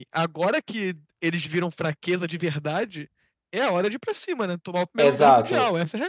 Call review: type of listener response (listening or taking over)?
taking over